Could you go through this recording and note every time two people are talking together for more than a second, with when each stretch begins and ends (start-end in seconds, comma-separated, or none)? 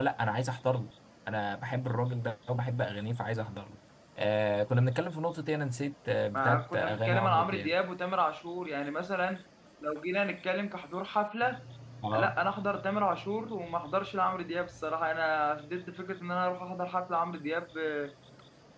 6.3-7.7